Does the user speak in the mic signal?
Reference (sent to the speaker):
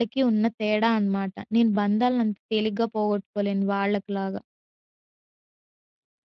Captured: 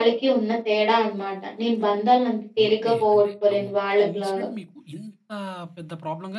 Yes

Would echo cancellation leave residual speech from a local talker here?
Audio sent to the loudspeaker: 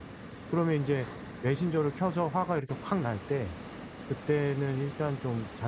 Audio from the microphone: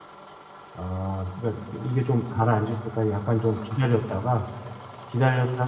Yes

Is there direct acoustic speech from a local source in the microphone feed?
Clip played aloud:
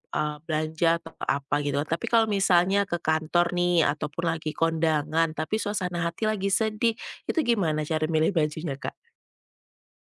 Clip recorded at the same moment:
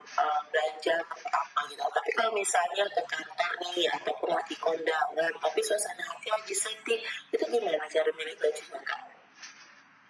No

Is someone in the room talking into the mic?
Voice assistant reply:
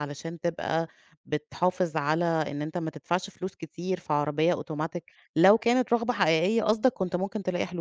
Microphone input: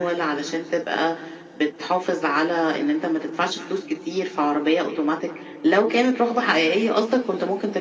No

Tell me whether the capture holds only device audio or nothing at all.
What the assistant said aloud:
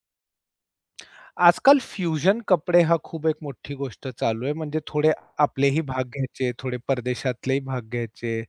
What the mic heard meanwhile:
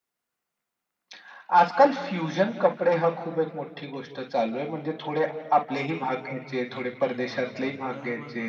No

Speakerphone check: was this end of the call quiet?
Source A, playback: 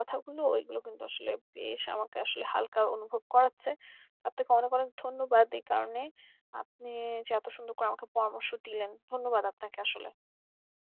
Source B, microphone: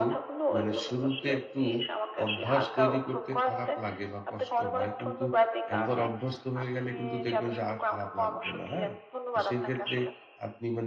No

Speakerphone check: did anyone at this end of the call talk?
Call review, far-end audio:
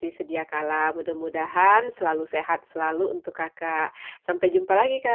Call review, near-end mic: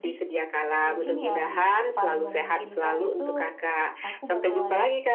Yes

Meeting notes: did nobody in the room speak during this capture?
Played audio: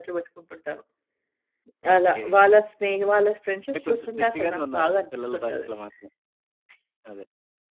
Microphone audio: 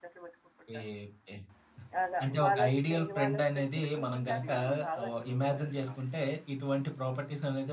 No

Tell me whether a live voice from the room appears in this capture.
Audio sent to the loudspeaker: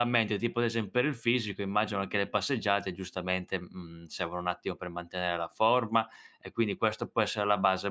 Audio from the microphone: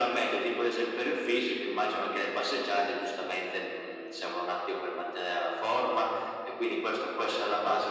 No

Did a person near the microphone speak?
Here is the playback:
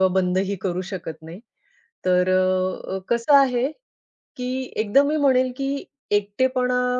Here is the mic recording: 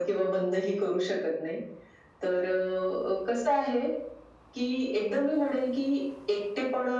No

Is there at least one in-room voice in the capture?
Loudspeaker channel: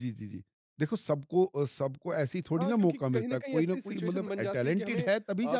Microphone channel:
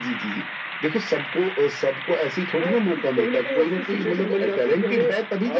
No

